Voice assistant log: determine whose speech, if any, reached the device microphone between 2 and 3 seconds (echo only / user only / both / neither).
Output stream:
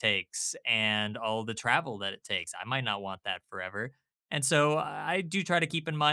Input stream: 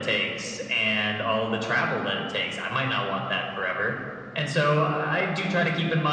echo only